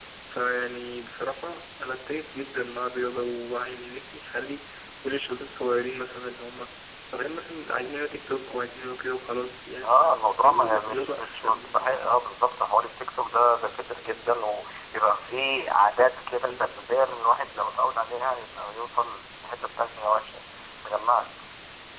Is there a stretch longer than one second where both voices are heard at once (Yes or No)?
Yes